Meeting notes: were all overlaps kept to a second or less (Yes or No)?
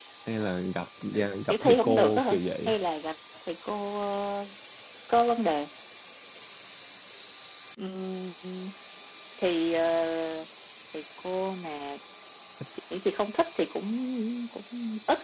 No